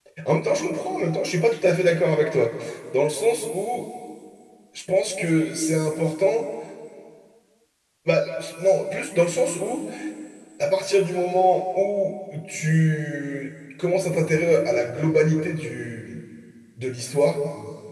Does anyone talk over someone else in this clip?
No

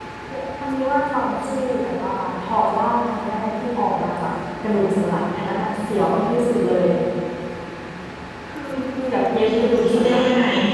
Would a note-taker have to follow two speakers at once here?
Yes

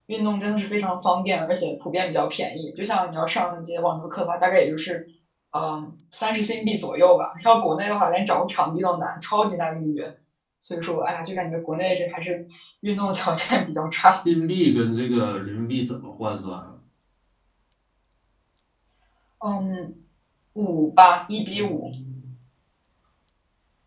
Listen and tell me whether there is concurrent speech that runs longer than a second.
No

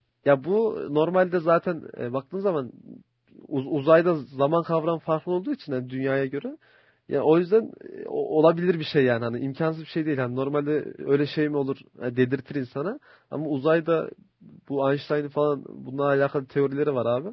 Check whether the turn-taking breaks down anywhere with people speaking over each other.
No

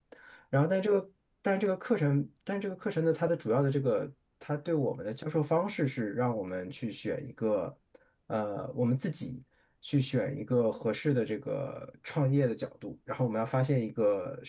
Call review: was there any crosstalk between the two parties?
No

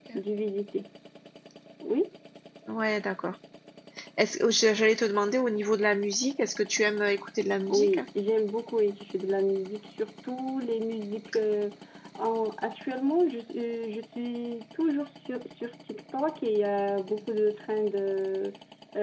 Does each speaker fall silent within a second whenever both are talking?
Yes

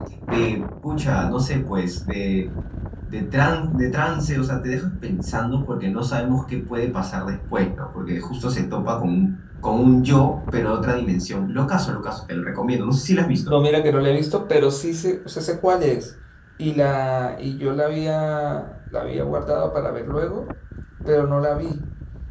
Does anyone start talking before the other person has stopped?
No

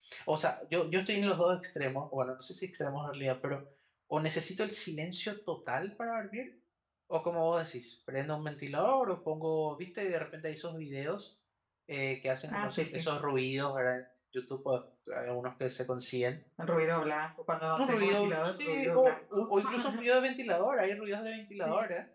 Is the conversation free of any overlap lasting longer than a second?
No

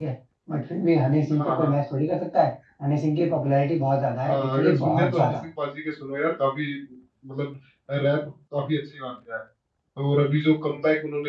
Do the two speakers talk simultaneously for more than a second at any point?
Yes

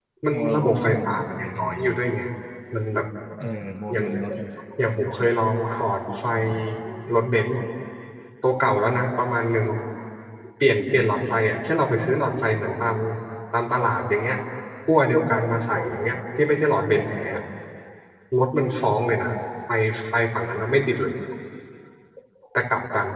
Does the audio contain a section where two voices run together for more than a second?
Yes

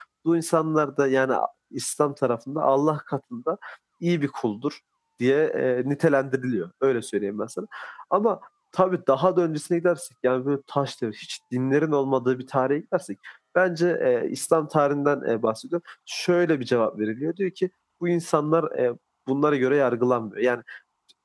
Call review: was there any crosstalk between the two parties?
No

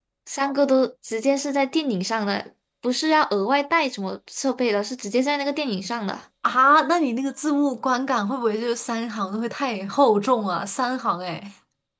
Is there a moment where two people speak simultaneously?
No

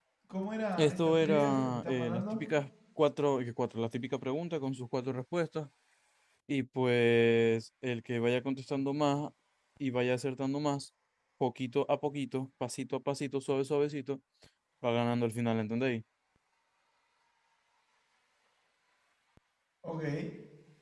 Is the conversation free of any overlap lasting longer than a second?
No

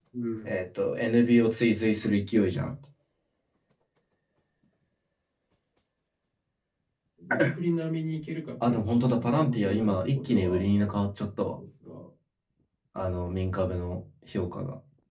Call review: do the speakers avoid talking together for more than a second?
No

